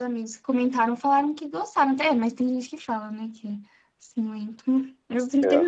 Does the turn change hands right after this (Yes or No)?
No